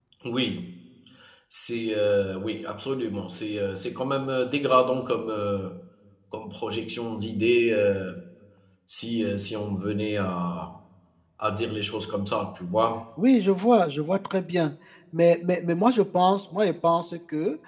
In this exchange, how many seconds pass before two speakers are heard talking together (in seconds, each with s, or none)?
none